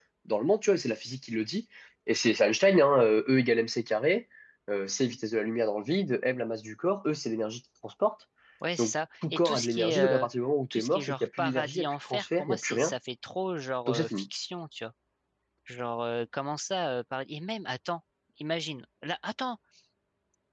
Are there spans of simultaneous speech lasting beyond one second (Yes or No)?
Yes